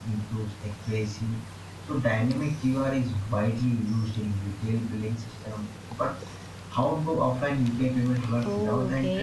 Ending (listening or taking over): taking over